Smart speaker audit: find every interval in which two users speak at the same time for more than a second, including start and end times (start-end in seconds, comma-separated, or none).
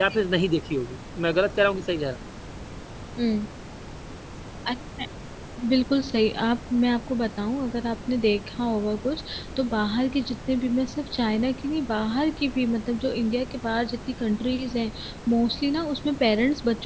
none